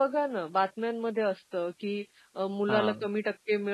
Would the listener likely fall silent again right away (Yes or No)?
Yes